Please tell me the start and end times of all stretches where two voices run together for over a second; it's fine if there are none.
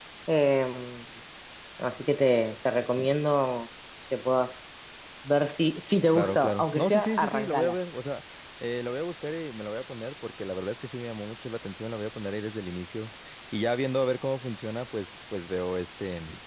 6.1-7.8

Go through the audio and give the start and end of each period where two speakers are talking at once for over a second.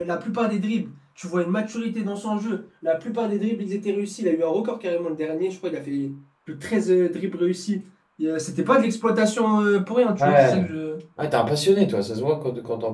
none

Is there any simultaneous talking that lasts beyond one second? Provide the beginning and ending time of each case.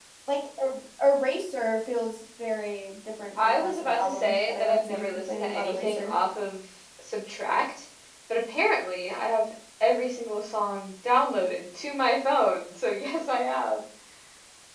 3.4-6.2

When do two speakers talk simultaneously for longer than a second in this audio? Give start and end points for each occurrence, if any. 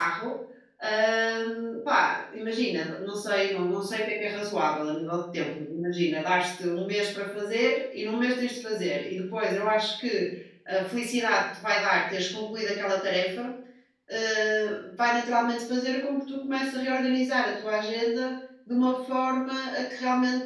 none

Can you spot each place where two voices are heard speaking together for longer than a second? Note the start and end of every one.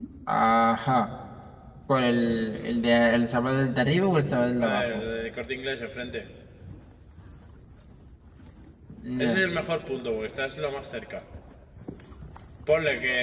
none

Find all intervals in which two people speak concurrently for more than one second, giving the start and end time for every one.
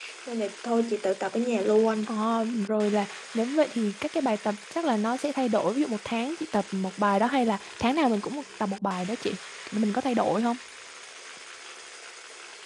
none

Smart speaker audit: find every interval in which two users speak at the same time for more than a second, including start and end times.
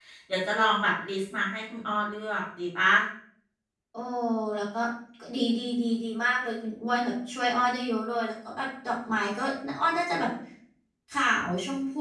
none

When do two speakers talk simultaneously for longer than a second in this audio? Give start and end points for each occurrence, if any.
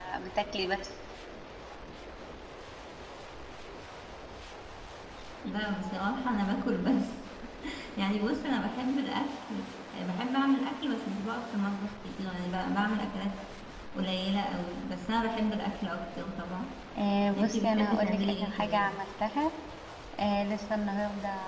17.4-18.9

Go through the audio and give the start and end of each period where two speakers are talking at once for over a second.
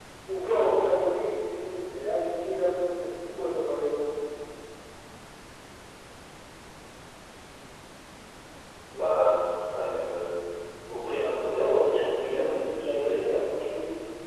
11.5-13.4

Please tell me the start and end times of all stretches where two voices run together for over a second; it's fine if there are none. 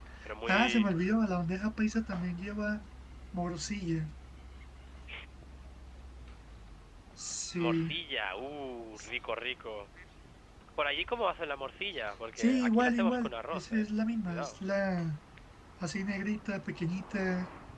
12.4-13.8

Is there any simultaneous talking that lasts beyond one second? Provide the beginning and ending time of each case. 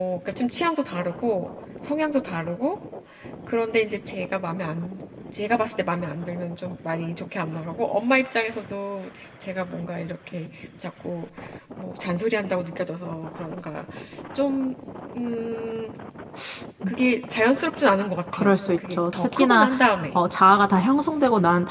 18.3-19.7

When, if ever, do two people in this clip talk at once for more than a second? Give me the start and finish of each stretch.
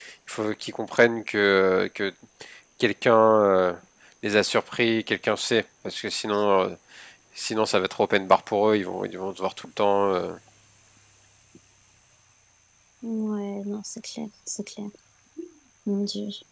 none

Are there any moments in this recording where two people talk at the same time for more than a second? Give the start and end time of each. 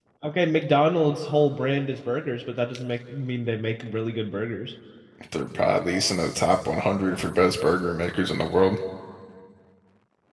none

